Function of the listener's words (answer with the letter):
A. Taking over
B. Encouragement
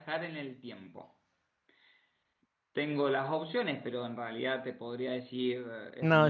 A